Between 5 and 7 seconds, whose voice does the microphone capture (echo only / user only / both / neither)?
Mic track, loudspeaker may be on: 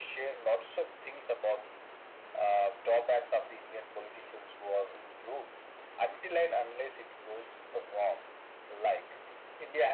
echo only